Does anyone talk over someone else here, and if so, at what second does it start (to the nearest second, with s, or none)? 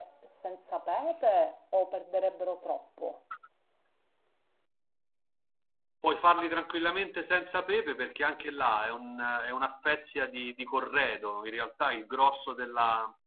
none